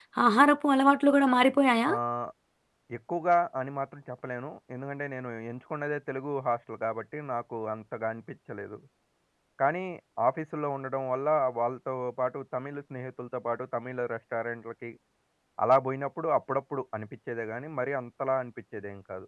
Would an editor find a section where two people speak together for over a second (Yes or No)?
No